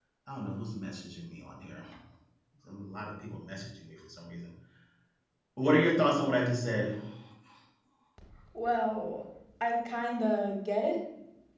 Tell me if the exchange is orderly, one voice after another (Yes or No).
Yes